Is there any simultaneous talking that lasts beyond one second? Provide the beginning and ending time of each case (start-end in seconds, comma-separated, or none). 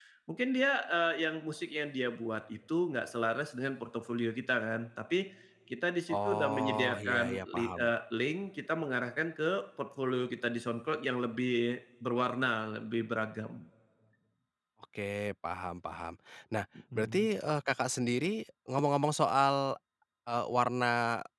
6.1-7.9